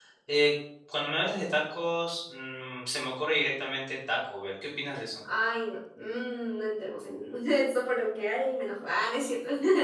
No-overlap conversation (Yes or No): Yes